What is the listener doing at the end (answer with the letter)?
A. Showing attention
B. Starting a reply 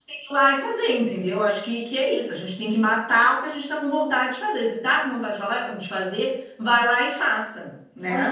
B